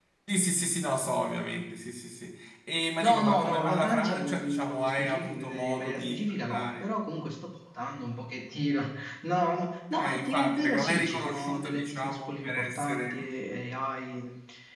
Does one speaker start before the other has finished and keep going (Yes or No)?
Yes